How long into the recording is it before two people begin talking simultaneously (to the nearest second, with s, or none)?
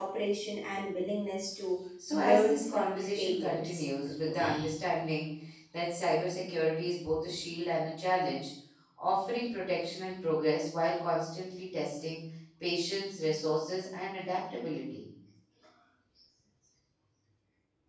2 s